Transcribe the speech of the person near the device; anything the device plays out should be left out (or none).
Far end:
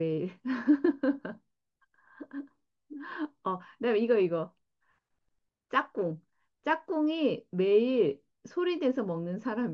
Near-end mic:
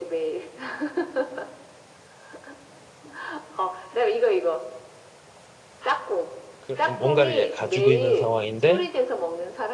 그 뭔가를 얘 가지고 있는 상황인데